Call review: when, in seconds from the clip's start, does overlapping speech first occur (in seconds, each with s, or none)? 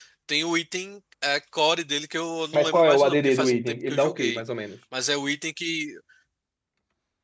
2.5 s